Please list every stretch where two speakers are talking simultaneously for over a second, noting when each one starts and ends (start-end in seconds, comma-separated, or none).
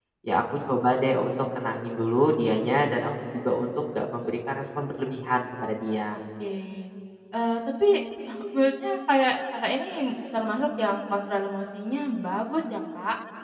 none